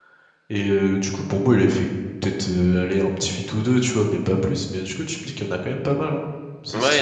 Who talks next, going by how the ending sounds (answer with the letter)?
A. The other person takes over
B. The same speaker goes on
A